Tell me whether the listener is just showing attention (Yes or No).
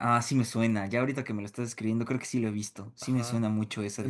No